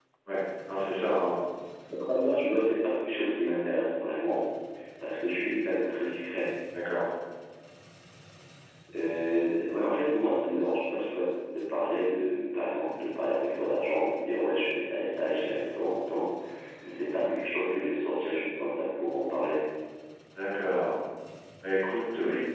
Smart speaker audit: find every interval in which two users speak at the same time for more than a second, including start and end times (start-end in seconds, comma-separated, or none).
none